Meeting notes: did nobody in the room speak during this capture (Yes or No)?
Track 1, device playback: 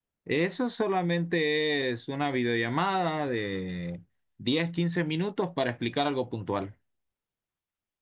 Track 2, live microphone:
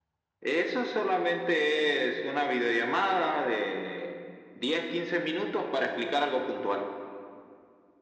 Yes